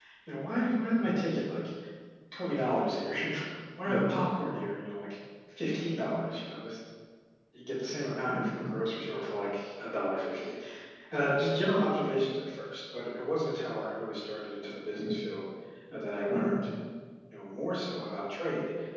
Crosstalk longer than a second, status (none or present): none